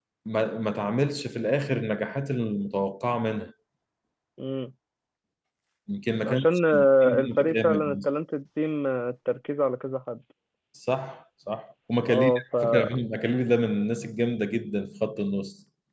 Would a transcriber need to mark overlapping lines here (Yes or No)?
Yes